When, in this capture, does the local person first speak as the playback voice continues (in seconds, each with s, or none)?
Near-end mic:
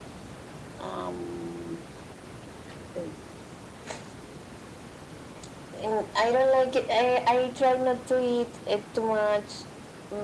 none